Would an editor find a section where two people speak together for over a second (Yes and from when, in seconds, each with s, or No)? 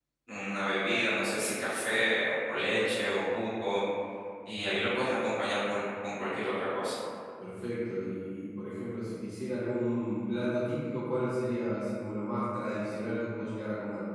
No